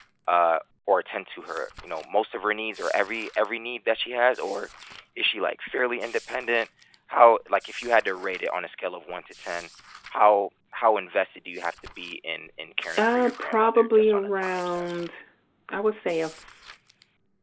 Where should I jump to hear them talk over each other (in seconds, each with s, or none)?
13.0 s